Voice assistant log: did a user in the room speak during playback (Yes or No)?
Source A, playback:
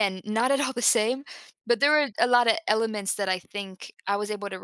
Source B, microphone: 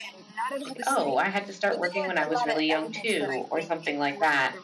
Yes